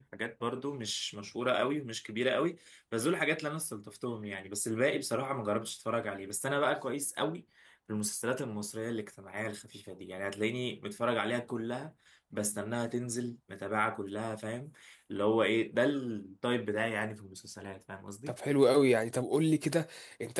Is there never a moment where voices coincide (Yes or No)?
Yes